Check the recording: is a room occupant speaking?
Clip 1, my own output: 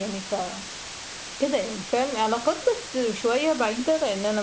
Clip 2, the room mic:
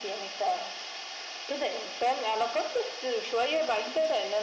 No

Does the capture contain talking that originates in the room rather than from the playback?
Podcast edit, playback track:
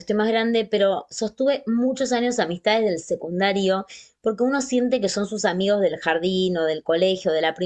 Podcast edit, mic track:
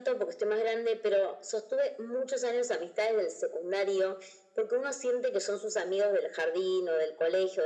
No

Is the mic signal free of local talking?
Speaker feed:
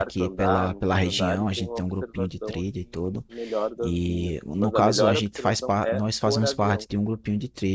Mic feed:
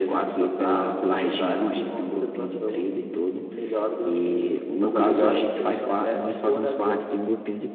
Yes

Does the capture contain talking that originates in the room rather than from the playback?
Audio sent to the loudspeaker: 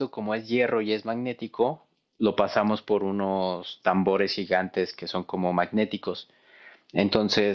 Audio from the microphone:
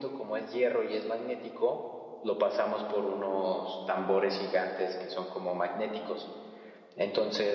No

